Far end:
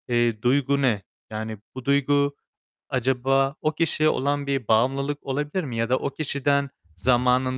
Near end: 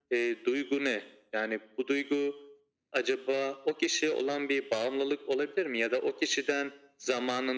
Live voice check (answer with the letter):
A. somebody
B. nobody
B